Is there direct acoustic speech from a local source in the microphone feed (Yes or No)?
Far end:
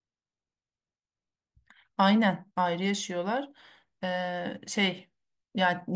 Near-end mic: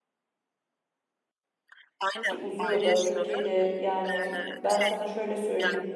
Yes